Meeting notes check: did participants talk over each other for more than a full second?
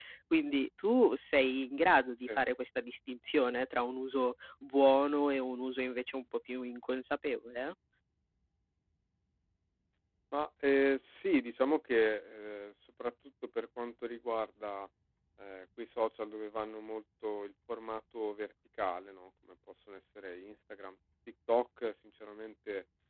No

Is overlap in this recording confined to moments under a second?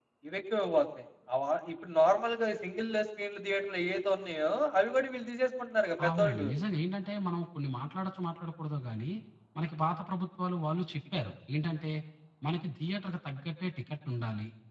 Yes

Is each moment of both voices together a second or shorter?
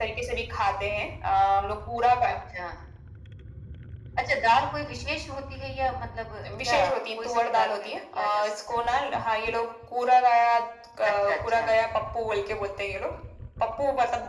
No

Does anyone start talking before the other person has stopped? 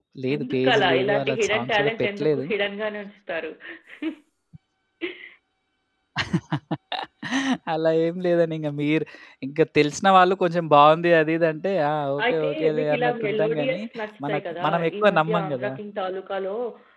Yes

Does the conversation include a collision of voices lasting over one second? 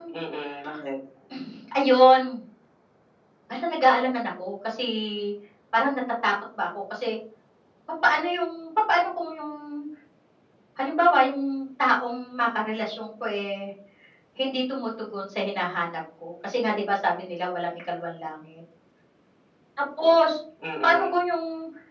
No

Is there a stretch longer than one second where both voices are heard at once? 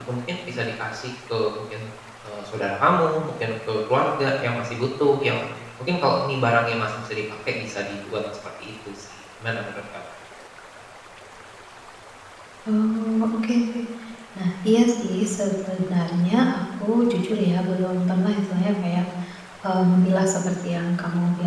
No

